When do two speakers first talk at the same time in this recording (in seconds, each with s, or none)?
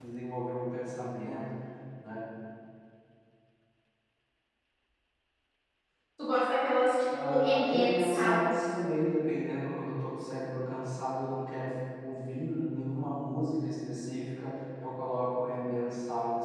7.1 s